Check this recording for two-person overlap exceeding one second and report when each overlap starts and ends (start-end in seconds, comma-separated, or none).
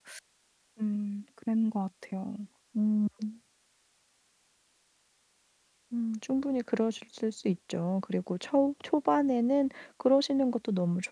none